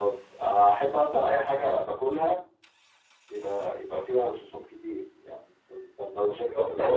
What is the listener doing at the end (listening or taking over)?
taking over